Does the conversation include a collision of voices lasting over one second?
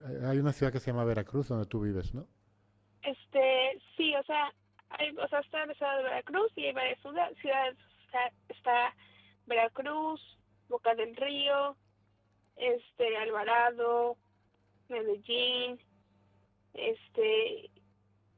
No

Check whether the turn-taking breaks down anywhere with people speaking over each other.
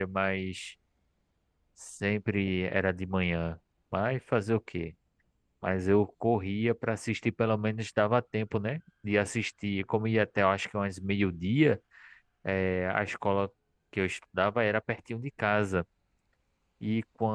No

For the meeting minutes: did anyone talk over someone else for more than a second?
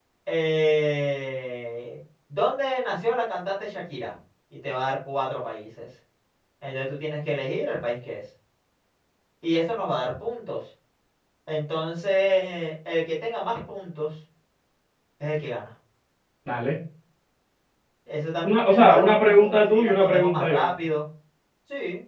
Yes, from 18.4 s

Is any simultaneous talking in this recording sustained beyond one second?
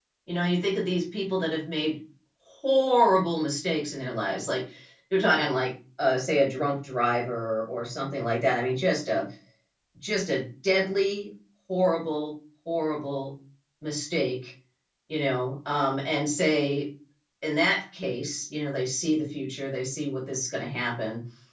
No

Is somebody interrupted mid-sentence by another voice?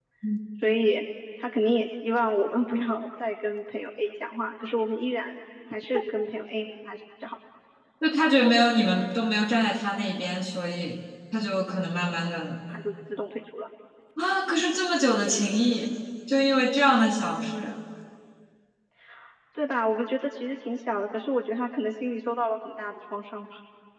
No

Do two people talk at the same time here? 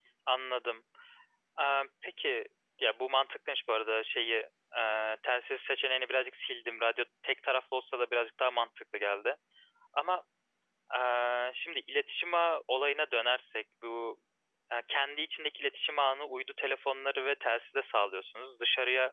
No

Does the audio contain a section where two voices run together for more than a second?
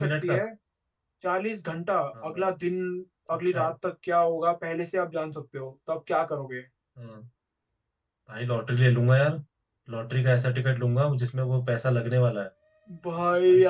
No

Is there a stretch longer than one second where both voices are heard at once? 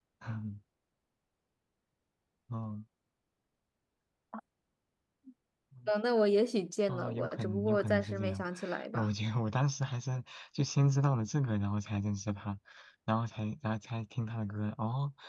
Yes, from 6.9 s

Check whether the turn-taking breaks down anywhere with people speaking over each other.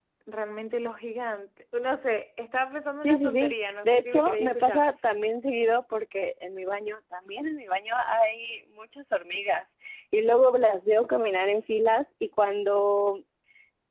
Yes, from 3.0 s

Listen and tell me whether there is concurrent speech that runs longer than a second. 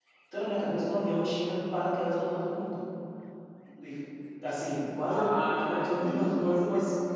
Yes, from 5.1 s

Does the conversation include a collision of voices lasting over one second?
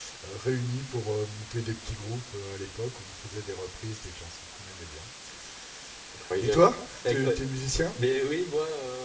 No

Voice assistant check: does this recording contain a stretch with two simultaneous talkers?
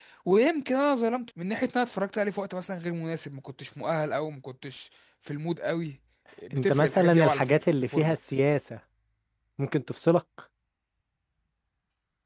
Yes, from 6.5 s

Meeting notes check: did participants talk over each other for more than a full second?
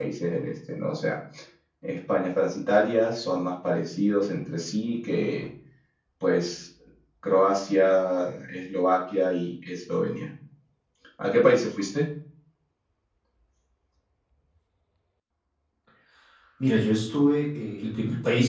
No

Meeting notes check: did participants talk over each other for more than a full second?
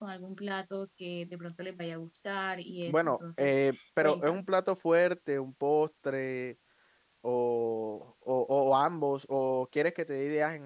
Yes, from 2.9 s

